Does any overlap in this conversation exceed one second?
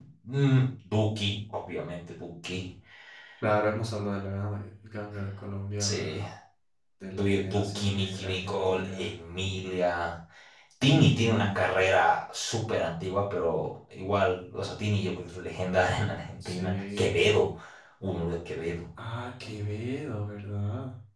Yes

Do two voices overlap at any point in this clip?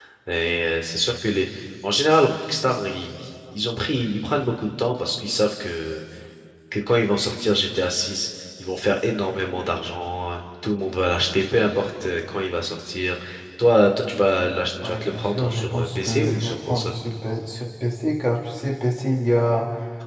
Yes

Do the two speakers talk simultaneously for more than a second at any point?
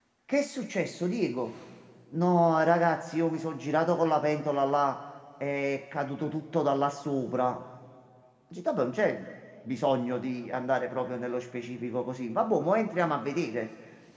No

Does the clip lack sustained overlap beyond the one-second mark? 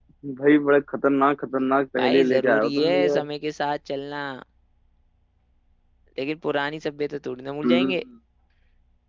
No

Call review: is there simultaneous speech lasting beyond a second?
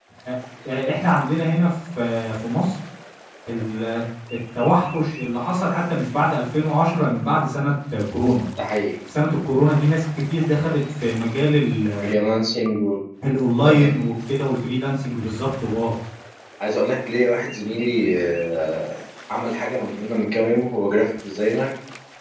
No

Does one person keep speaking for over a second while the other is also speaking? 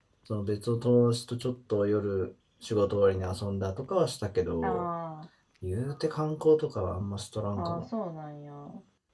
No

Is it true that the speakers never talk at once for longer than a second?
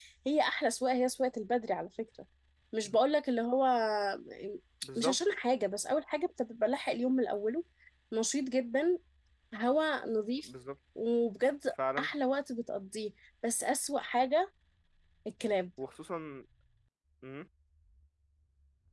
Yes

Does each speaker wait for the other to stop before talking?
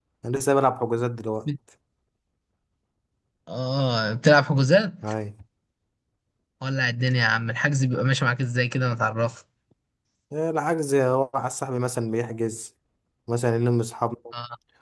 Yes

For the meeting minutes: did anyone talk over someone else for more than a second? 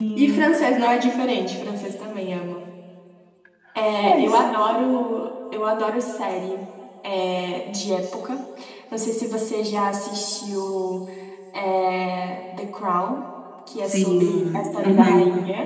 Yes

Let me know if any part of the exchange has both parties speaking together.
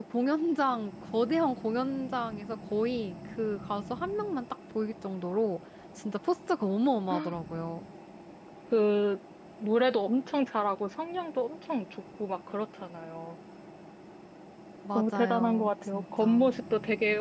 Yes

